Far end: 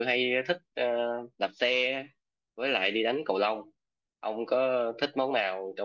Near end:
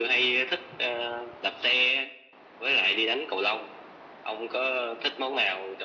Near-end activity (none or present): none